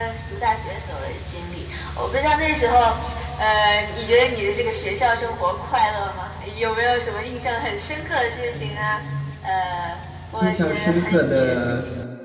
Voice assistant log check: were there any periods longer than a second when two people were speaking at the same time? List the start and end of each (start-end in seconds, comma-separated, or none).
10.4-11.7